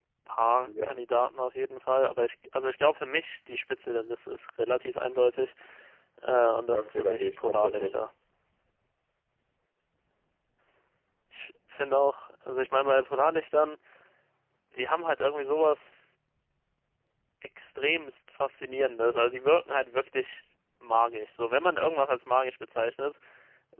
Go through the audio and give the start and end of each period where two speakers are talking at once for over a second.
6.7-8.0

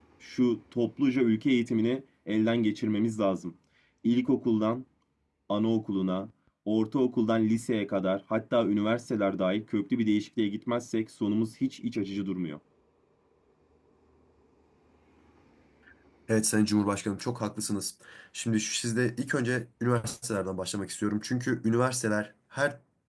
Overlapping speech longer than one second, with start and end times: none

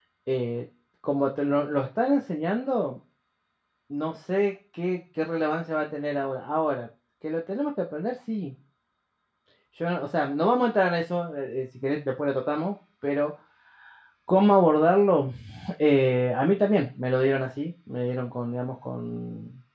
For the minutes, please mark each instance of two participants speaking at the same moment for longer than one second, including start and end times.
none

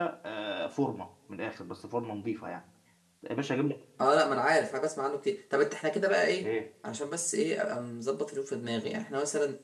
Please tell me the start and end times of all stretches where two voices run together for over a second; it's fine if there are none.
none

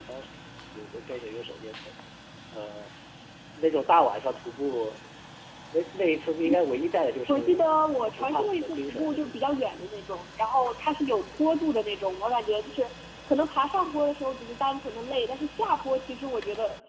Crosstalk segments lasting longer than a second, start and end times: 7.3-9.6

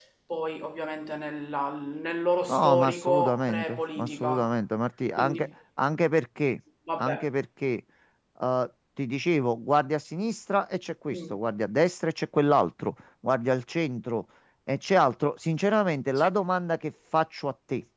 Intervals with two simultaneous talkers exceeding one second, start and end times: 2.5-4.5

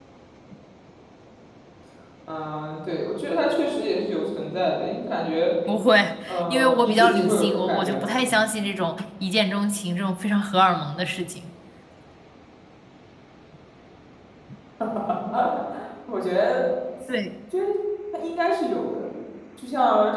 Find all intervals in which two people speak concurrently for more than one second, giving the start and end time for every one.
6.3-8.1

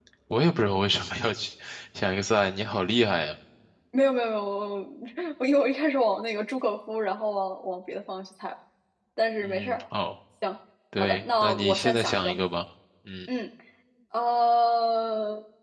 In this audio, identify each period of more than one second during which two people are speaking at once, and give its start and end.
11.0-12.4

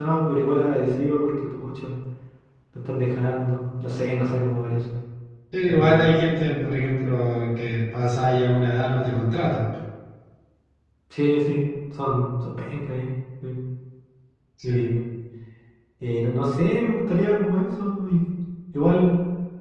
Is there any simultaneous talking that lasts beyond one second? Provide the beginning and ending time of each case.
none

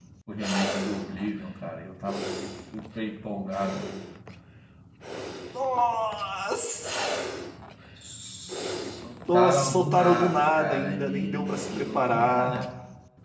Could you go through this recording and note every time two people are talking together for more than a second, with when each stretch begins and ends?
9.3-12.8

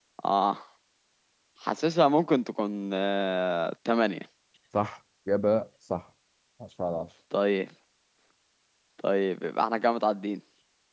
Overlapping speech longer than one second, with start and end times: none

